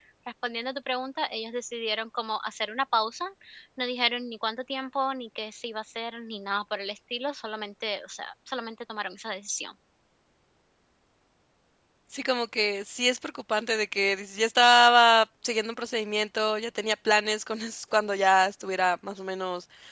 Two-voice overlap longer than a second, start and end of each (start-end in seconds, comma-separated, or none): none